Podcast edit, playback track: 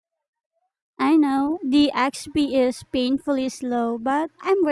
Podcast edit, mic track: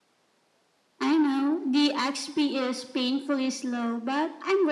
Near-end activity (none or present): none